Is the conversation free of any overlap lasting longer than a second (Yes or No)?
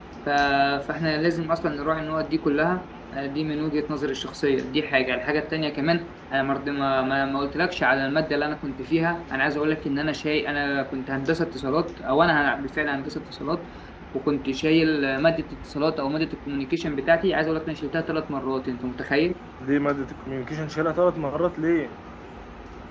Yes